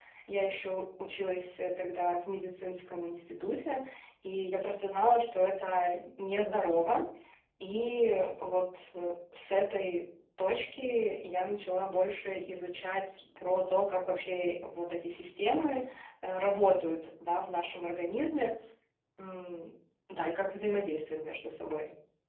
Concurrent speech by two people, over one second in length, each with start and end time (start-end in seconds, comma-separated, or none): none